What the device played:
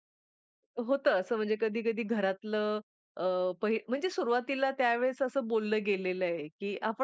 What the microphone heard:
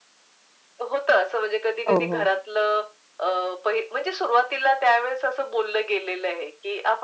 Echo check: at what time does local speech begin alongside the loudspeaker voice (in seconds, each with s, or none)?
1.9 s